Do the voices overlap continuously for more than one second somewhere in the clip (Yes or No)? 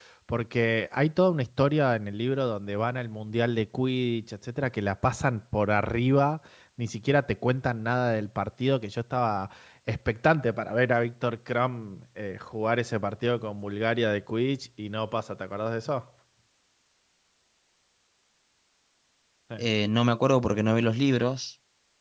No